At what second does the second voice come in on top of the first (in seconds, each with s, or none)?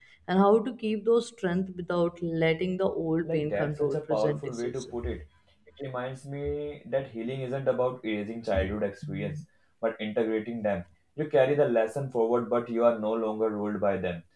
3.2 s